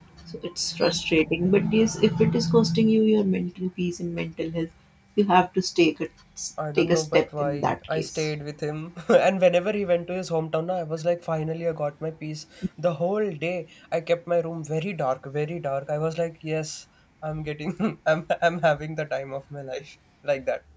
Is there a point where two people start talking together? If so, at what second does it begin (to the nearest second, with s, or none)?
7 s